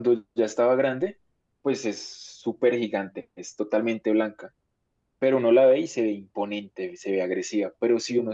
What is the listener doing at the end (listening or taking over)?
listening